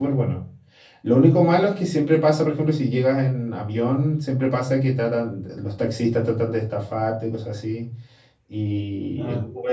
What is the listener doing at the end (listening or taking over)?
listening